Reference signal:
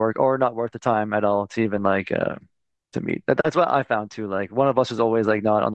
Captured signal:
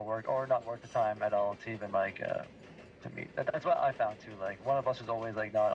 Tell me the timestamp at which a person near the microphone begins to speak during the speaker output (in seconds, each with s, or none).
none